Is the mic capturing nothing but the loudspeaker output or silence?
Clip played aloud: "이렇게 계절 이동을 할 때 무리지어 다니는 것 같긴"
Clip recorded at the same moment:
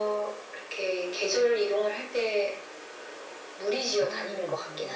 No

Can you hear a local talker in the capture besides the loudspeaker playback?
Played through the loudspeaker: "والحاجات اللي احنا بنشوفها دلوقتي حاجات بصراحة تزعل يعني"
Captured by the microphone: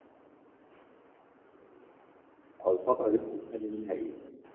Yes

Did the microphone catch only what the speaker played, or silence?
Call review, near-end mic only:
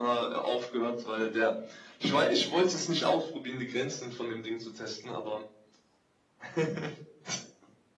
Yes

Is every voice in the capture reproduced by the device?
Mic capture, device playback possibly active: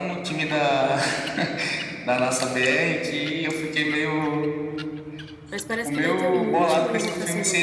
No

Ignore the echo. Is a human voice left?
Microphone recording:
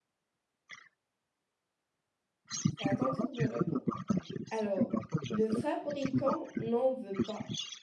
Yes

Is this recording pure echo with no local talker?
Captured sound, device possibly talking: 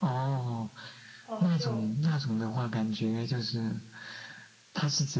No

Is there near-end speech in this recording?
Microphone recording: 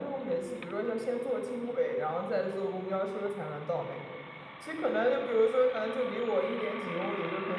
No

